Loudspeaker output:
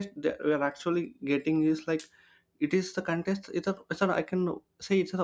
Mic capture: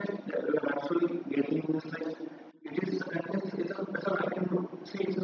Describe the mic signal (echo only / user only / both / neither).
echo only